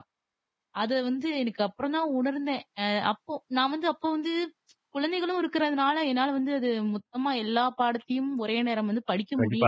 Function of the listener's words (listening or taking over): taking over